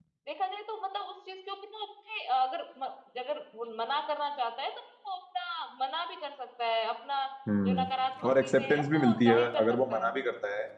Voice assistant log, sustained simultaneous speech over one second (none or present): present